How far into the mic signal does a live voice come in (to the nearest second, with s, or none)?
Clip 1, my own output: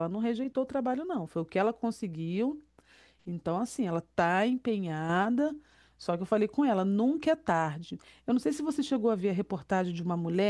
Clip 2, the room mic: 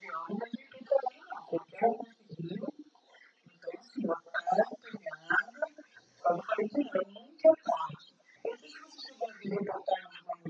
none